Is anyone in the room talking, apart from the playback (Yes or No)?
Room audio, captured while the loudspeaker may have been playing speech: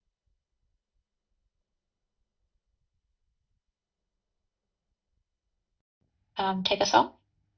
Yes